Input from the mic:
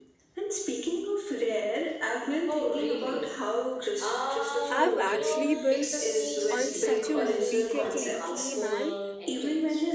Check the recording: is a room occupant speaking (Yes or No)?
Yes